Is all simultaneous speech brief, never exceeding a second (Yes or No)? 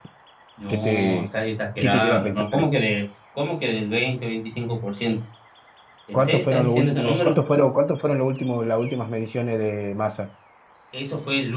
No